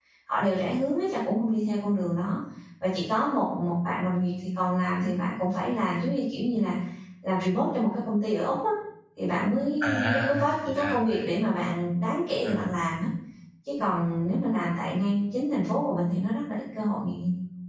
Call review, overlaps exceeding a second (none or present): present